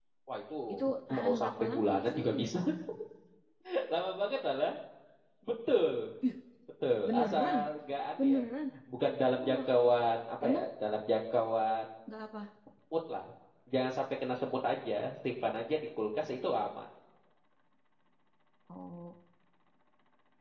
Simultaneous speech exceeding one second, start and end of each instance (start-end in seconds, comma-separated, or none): 1.1-2.4